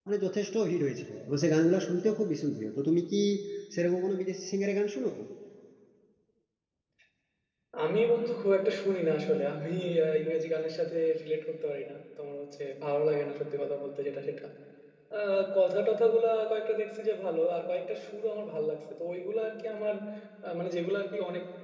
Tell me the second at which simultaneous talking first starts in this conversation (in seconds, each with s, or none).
none